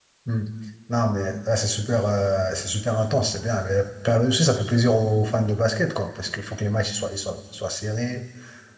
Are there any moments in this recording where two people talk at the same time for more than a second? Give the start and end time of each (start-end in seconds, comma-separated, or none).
none